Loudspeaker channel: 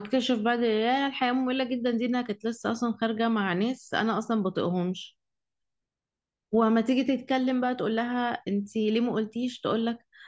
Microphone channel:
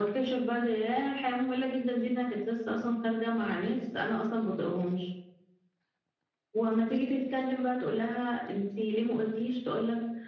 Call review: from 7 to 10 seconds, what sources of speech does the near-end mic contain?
echo only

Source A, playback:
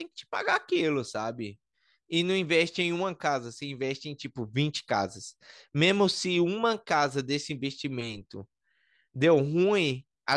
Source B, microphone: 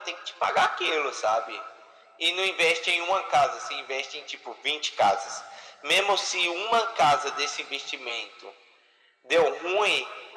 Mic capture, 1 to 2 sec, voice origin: echo only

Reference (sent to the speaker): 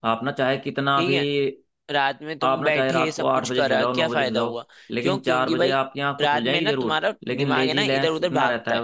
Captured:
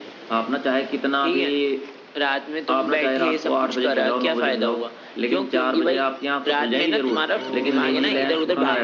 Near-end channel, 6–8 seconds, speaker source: both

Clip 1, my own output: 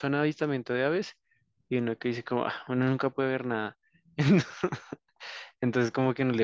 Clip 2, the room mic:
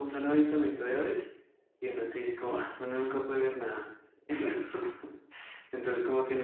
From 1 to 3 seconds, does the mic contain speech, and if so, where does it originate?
echo only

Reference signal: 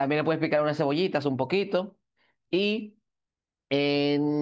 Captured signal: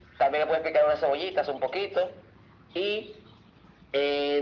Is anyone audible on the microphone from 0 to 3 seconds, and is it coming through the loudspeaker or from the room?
echo only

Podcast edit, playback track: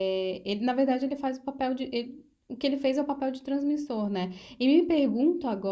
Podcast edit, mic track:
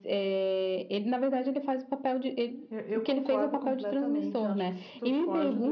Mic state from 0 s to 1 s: echo only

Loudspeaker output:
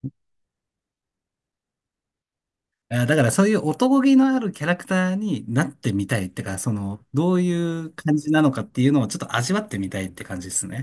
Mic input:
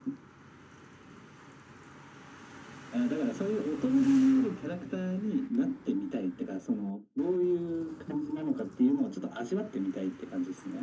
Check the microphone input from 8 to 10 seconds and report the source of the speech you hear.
echo only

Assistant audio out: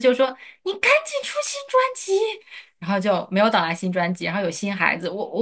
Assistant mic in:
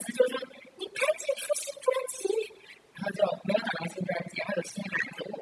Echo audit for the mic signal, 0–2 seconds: echo only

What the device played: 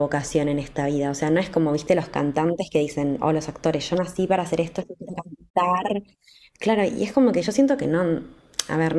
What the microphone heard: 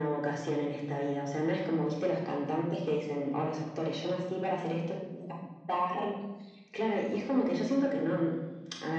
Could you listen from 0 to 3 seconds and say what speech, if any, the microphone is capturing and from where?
echo only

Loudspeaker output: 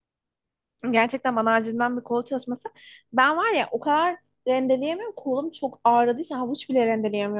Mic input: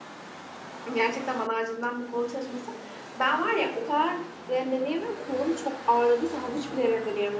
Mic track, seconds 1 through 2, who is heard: echo only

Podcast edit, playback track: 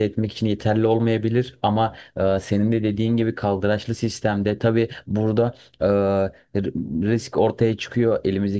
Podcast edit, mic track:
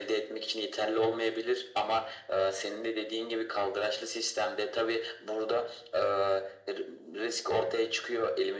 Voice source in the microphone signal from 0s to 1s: echo only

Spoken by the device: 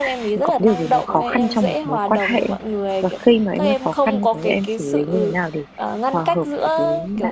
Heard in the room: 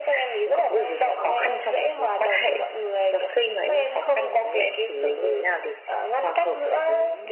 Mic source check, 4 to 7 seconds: echo only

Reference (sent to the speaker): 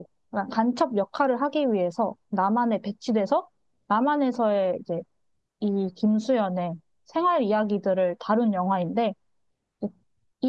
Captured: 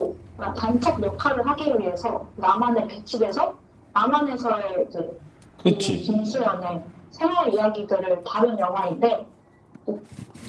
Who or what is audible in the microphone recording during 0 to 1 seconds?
echo only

